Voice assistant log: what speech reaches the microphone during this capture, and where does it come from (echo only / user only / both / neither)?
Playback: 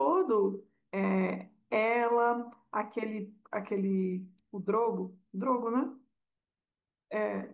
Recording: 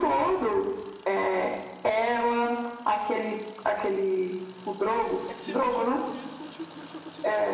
both